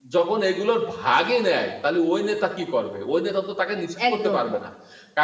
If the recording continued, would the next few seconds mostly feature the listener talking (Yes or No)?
No